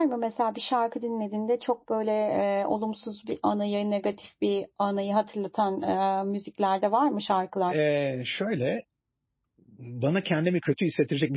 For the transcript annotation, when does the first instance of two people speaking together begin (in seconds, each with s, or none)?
none